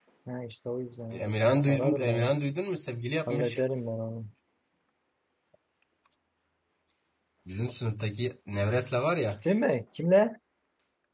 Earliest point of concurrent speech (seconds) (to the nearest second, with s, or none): 1 s